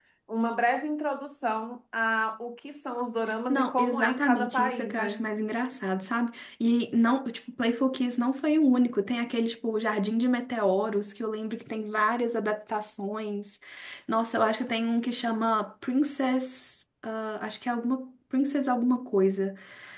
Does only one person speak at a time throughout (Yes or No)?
No